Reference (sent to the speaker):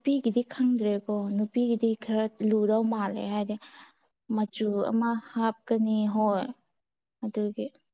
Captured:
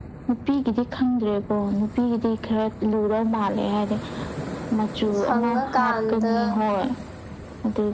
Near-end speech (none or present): present